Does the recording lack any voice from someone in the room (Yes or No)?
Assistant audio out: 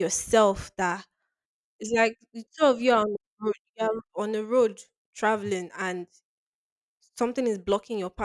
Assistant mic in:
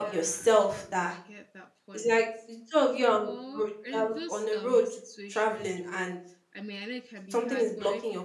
No